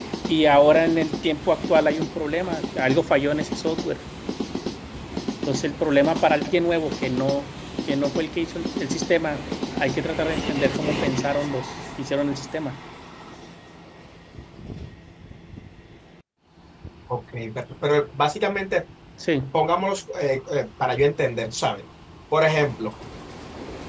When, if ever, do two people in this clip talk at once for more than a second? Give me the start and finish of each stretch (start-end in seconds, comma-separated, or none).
none